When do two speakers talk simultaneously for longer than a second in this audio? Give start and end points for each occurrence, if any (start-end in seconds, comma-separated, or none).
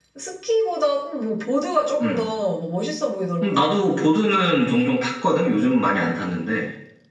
none